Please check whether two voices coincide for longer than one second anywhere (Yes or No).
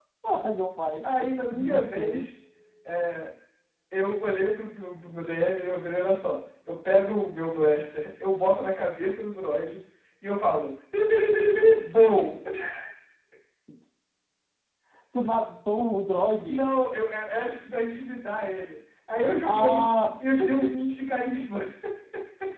Yes